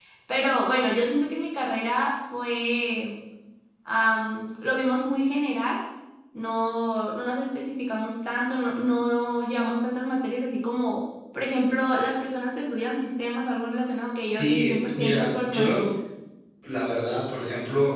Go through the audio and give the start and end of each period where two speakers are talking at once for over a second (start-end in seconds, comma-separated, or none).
14.3-15.9